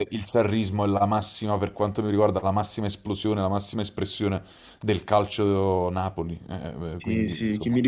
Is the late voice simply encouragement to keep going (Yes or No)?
No